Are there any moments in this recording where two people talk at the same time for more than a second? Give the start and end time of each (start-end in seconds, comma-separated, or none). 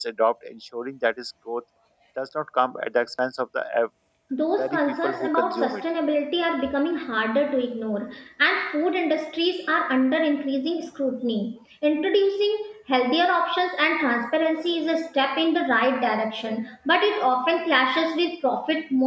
4.6-5.8